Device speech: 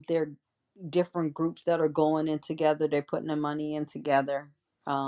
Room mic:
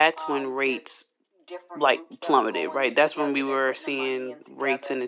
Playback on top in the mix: No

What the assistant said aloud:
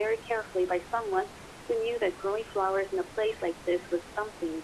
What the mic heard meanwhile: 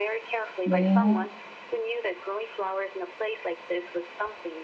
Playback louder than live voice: No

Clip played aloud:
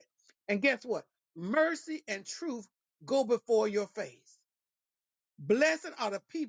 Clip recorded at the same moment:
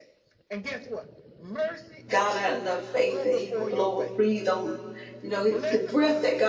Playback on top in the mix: No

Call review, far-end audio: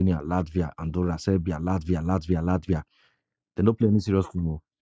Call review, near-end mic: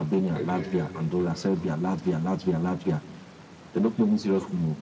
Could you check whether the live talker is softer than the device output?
Yes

